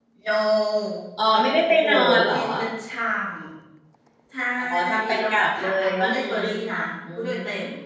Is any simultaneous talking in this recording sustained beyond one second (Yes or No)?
Yes